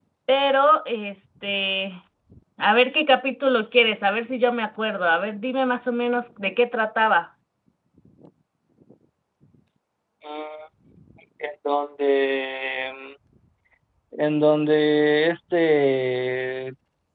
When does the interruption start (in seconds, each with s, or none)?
none